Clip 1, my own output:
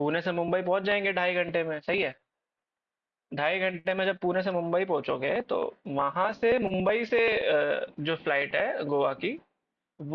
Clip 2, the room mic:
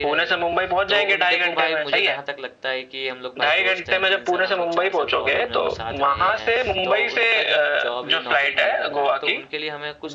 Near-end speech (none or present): present